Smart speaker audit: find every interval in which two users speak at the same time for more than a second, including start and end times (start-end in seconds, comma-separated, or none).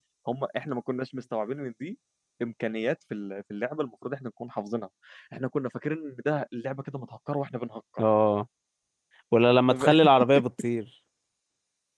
none